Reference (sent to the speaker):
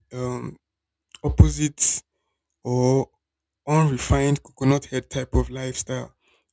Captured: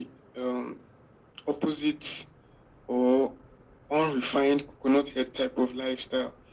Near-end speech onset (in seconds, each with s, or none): none